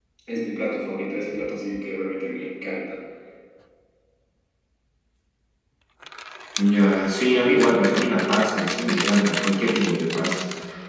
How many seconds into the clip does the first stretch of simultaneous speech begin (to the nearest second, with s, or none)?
none